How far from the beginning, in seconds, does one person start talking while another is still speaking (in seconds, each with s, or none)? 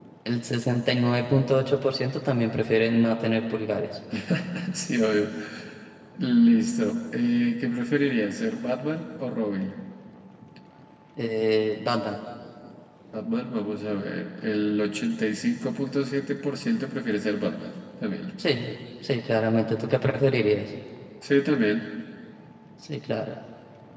none